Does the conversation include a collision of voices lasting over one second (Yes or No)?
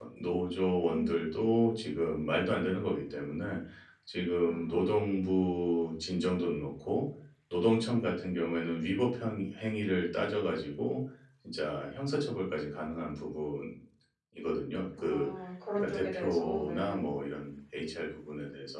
Yes